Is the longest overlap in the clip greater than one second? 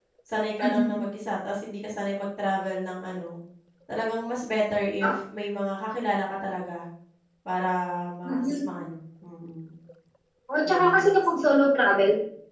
No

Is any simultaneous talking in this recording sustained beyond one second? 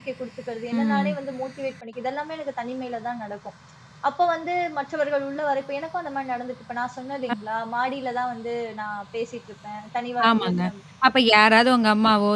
No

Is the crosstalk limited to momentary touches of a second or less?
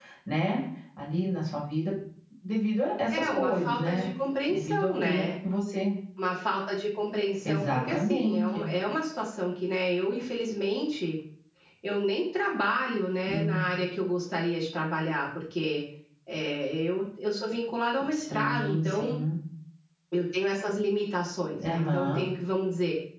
No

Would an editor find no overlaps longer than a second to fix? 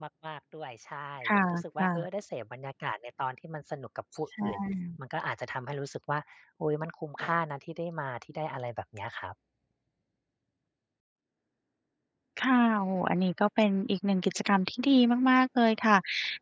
Yes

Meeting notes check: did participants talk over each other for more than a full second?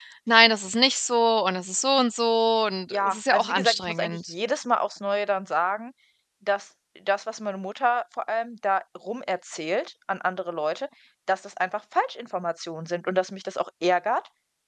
Yes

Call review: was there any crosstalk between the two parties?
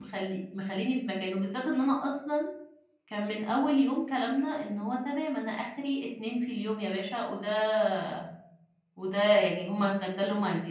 No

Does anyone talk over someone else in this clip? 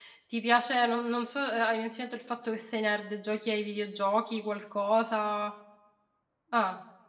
No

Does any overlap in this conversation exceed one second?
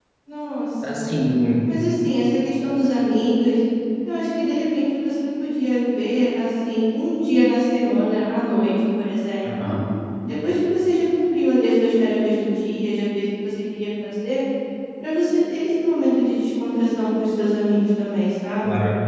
No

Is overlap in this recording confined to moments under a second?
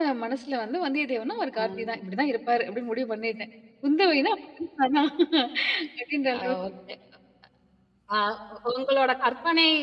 Yes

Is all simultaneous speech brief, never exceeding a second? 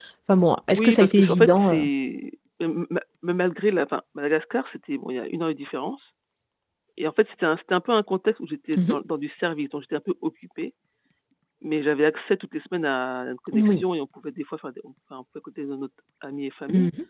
No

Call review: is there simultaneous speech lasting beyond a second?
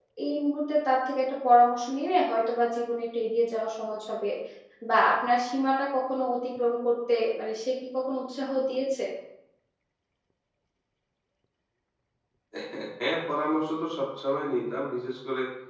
No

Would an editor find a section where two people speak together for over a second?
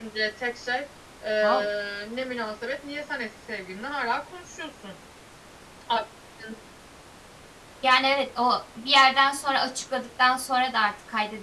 No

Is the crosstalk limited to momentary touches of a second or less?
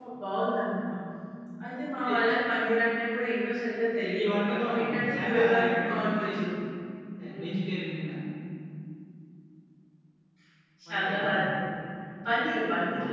No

